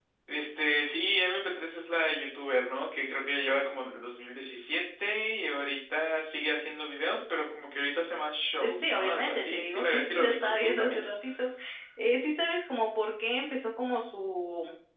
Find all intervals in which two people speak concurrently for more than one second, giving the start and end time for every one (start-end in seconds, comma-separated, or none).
8.6-11.0